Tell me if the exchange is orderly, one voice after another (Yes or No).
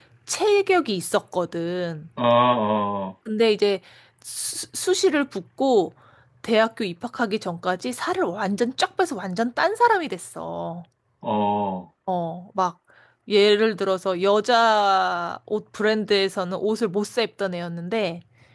Yes